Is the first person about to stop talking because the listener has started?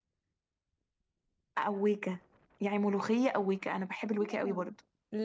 Yes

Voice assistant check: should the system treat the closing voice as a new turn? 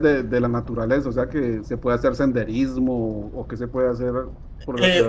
Yes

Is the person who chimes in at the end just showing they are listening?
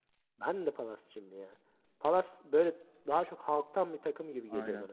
No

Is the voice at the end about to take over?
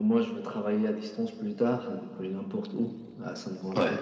No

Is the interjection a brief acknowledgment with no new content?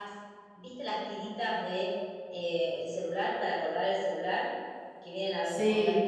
Yes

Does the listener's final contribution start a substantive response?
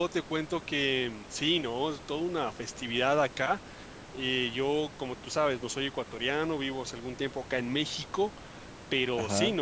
No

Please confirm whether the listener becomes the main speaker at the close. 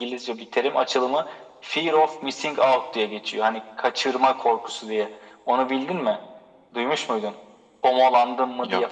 No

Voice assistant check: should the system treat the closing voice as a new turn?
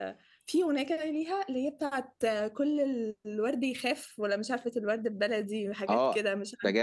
Yes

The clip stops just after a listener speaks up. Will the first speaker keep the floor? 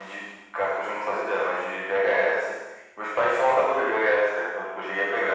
Yes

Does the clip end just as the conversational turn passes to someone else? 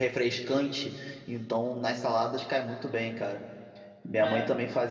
No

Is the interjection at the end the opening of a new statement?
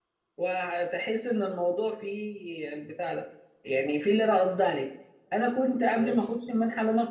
No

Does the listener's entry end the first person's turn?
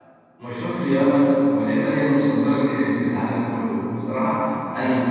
No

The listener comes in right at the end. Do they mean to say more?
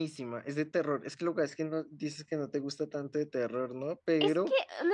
Yes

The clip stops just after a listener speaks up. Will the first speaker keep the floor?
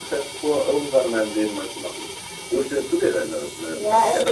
No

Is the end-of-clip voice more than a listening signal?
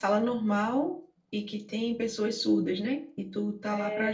Yes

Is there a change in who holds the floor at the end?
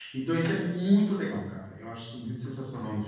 Yes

